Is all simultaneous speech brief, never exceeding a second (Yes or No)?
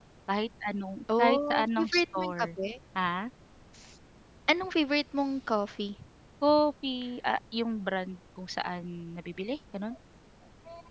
No